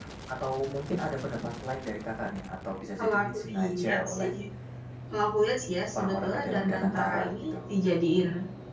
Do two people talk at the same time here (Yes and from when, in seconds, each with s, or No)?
Yes, from 3.0 s